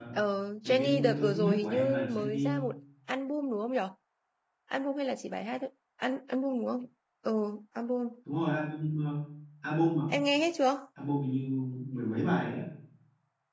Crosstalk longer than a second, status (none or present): present